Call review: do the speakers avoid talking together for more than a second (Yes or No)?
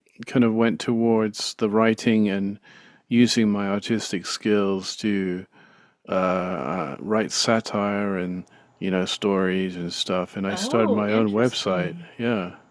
No